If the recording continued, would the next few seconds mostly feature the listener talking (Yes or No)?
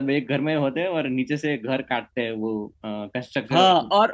Yes